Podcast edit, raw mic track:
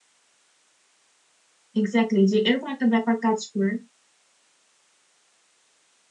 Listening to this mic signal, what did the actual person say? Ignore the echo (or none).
এক্স্যাক্টলি যে এরকম একটা ব্যাপার কাজ করে